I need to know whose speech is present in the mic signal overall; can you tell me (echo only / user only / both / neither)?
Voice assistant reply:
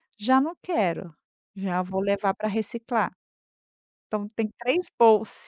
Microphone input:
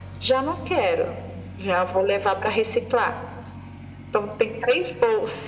echo only